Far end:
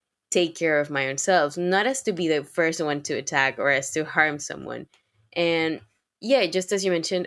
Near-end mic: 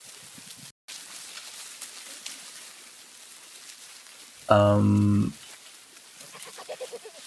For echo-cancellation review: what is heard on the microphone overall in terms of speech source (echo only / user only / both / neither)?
user only